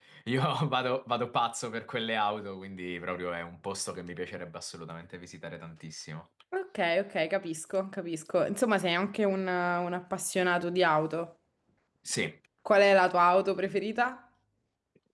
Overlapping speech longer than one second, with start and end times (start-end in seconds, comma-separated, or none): none